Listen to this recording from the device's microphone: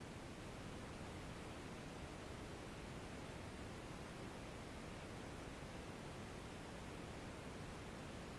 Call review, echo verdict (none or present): none